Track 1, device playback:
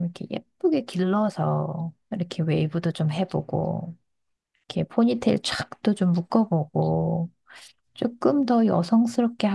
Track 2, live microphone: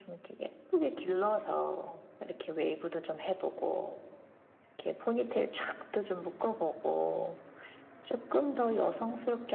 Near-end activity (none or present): none